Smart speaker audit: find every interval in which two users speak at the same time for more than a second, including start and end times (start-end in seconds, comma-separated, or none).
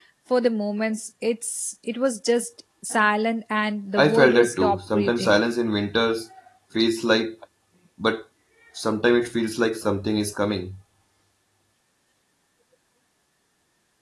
4.0-5.4